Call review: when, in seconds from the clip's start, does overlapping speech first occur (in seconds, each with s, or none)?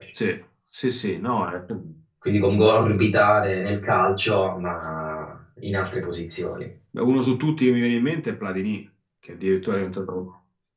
none